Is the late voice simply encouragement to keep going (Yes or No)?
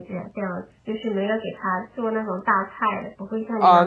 No